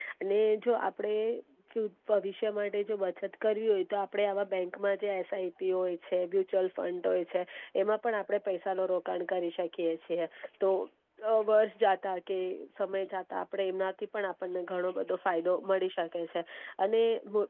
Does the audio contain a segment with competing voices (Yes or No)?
No